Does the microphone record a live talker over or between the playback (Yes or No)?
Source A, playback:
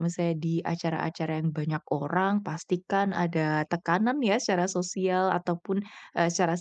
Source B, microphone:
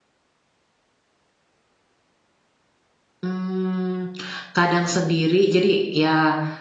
Yes